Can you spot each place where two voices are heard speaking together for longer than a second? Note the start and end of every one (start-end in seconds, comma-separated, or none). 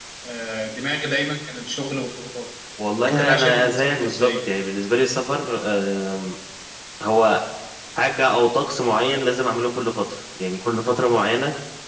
3.0-4.5